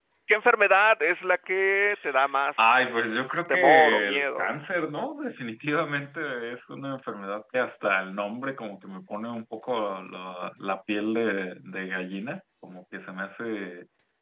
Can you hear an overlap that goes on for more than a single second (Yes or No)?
Yes